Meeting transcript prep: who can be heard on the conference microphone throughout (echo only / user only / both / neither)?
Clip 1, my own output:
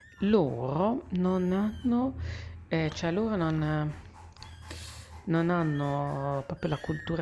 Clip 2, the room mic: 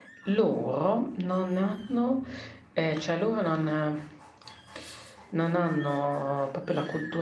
echo only